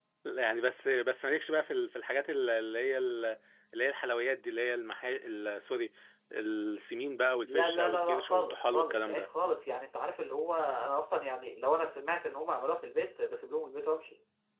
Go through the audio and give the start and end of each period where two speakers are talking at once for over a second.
7.5-9.3

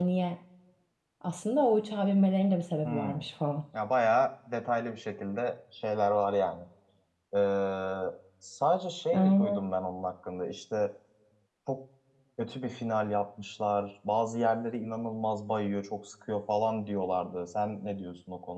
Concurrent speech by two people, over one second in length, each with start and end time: none

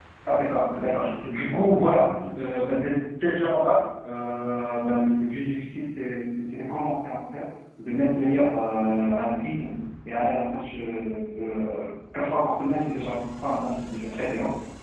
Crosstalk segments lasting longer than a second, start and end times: 0.7-2.1

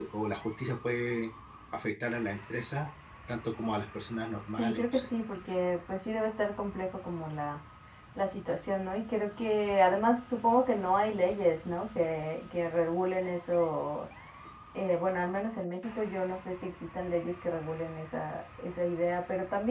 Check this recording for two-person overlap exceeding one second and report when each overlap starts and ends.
none

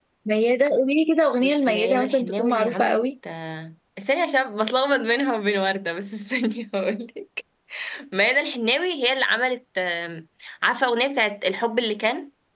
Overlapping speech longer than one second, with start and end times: 1.4-3.0

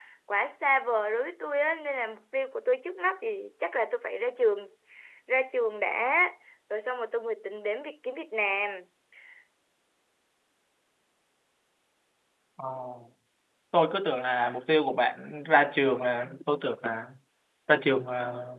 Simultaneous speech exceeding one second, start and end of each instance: none

